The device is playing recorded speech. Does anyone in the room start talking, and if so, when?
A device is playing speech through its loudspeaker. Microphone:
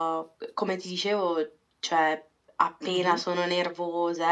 3 s

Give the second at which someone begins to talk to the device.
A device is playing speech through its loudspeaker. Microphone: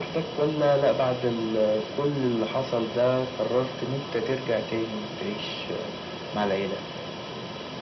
none

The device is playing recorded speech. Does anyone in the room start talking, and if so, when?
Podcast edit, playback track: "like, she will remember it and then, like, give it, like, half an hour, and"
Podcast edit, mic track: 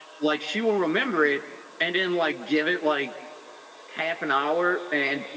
none

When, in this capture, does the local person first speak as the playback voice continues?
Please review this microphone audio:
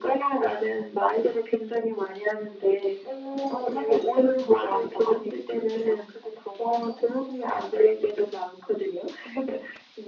none

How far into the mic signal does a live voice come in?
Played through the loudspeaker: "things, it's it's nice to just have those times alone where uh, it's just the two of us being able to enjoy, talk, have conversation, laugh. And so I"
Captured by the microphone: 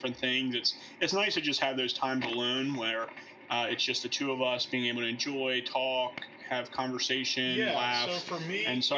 7 s

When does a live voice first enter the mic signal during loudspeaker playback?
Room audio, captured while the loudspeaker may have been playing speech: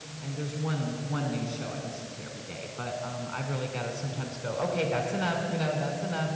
none

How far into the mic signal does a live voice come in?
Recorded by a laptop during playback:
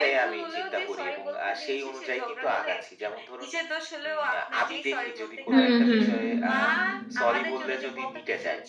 5 s

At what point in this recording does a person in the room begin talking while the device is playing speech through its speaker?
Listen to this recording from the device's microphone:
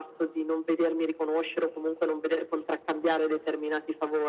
none

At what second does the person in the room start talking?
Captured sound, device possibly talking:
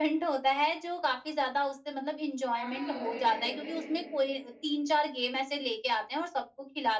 3 s

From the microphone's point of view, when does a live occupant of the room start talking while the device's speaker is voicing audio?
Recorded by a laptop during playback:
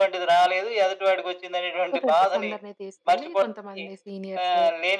2 s

